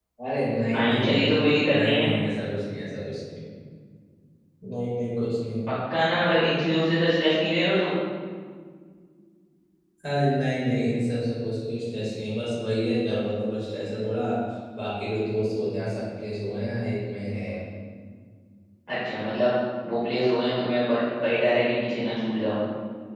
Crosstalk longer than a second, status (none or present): present